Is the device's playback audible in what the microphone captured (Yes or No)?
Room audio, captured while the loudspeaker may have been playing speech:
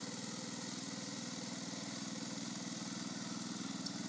No